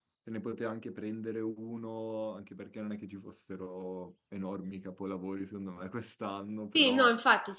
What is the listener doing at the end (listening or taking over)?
taking over